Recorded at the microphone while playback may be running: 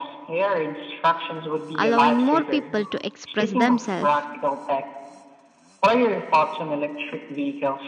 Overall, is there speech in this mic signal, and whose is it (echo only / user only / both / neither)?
both